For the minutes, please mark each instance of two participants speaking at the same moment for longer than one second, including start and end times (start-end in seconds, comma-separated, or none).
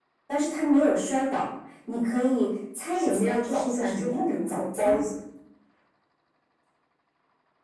2.9-5.0